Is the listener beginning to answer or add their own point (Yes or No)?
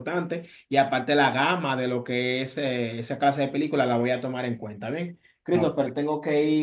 No